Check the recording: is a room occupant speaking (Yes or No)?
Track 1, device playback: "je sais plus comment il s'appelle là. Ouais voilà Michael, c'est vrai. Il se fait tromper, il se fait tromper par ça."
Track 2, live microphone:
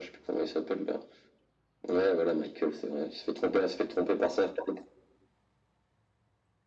No